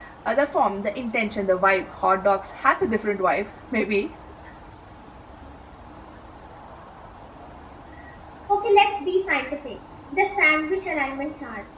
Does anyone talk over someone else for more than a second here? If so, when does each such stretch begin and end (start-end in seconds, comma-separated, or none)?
none